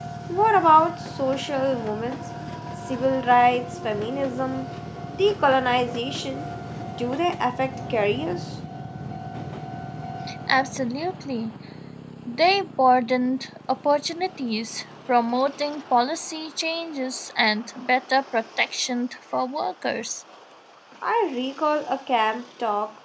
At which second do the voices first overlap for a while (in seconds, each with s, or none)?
none